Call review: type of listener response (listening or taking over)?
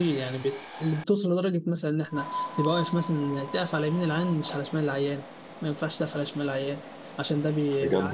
listening